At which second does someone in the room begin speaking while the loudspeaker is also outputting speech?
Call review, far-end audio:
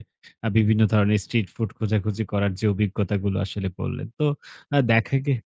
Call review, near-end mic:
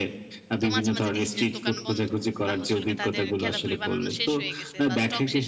0.6 s

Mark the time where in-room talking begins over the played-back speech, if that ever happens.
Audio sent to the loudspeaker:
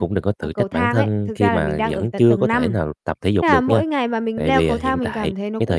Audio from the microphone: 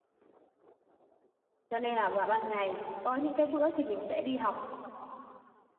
1.7 s

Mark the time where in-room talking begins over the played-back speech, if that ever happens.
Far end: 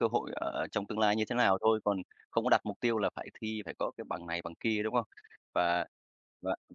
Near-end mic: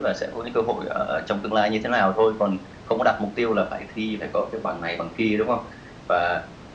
none

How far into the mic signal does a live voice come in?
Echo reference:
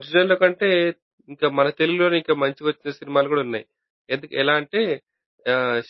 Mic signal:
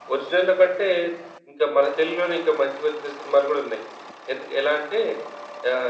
none

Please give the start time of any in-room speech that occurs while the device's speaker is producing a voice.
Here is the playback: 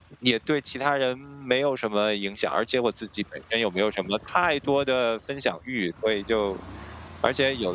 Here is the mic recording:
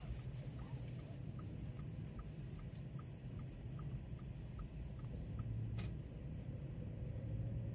none

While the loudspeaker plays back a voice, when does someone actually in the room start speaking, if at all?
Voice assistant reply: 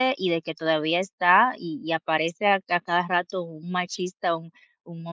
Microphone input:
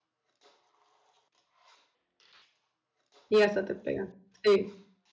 3.3 s

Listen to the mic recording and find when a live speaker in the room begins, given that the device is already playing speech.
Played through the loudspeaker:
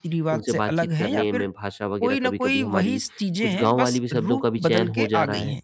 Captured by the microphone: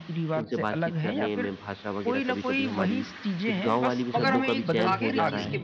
4.1 s

